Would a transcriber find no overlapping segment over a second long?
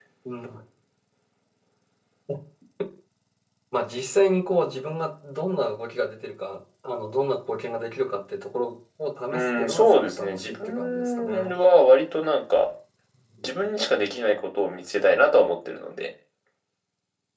No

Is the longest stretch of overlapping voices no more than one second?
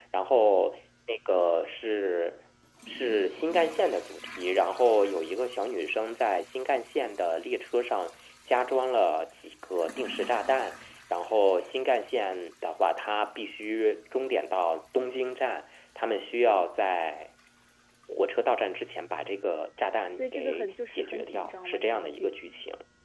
No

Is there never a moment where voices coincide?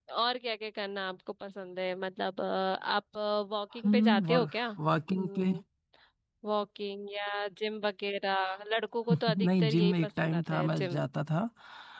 No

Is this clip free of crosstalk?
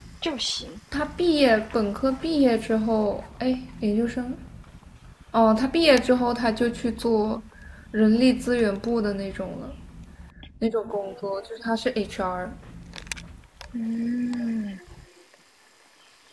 Yes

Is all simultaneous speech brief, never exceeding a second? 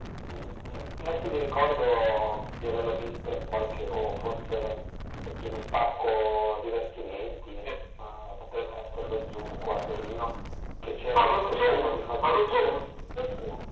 No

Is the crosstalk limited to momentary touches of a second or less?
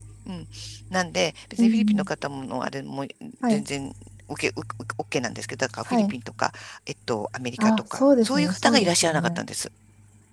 No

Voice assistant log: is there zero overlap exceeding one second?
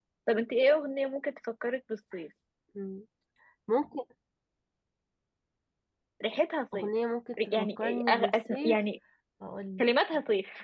No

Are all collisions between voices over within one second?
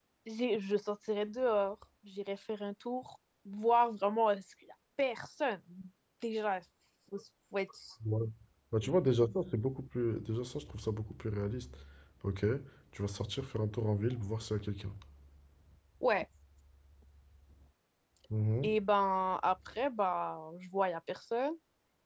Yes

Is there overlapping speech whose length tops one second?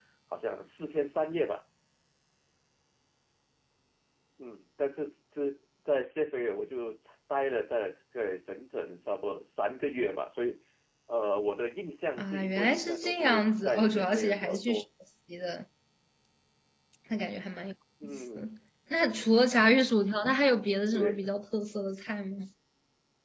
Yes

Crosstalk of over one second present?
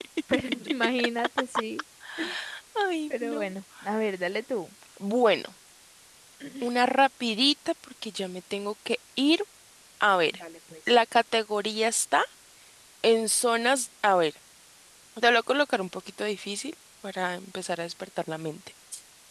No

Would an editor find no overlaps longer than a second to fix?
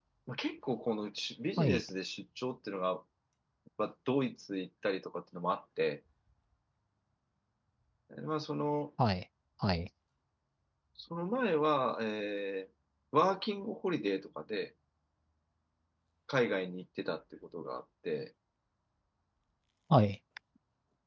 Yes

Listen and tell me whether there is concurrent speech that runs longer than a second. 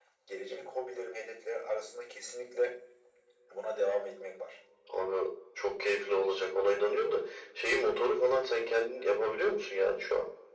No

